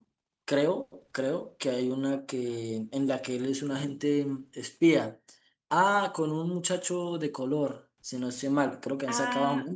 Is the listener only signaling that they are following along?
No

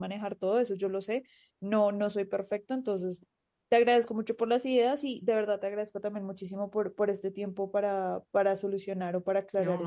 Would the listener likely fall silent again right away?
No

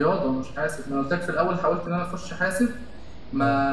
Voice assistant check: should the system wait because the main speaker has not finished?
Yes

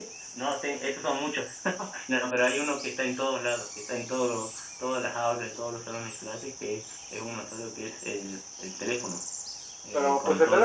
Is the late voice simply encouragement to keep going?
No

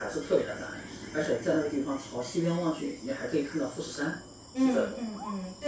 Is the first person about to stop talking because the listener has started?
Yes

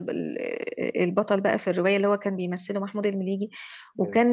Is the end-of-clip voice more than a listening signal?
No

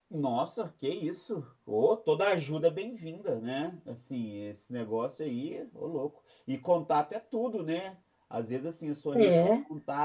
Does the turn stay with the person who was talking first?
Yes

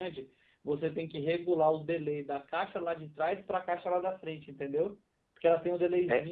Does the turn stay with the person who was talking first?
Yes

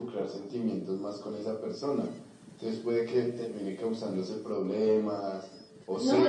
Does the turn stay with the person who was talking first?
No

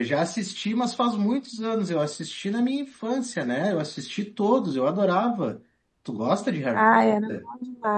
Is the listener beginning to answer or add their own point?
Yes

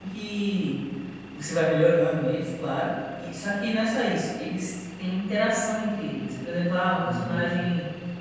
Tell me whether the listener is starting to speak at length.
No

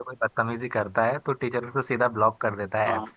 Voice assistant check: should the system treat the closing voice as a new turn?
Yes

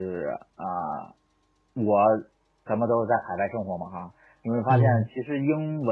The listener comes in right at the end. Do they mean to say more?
No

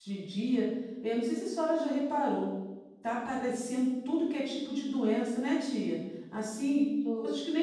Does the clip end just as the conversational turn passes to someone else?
No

